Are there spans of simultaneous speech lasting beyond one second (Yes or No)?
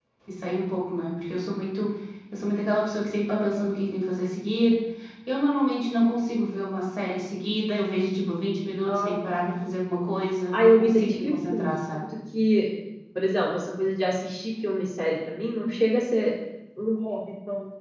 Yes